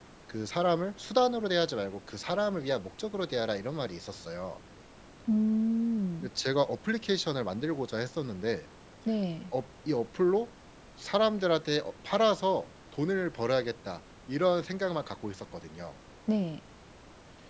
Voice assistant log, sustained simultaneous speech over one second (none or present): none